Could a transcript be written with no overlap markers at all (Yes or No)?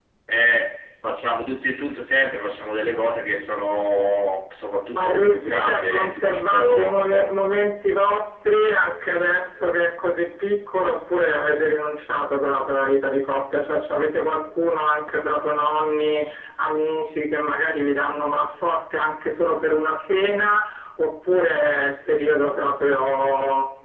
No